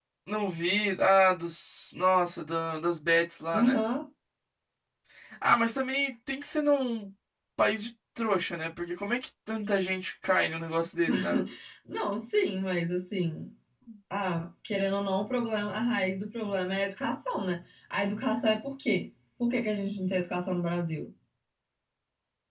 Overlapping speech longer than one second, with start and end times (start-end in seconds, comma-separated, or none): none